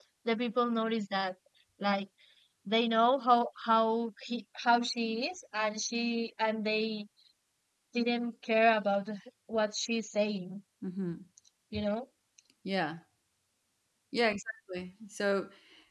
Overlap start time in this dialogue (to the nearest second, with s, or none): none